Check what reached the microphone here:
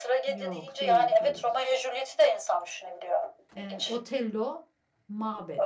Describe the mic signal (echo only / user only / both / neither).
both